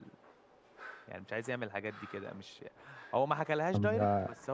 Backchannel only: Yes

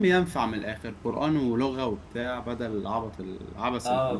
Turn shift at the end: Yes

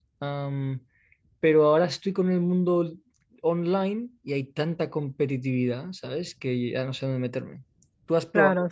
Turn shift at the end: Yes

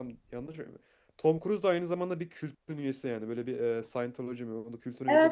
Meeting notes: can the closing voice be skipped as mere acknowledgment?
No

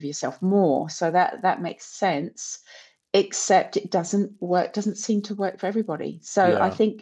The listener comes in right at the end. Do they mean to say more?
No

